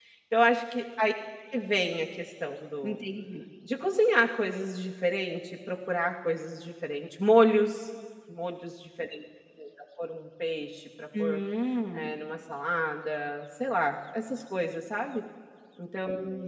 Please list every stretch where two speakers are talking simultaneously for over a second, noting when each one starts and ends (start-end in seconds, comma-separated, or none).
none